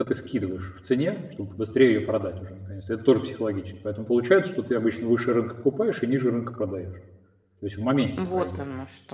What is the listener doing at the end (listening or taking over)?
taking over